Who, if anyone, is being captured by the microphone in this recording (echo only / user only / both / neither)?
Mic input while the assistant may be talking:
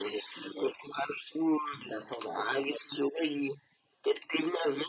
echo only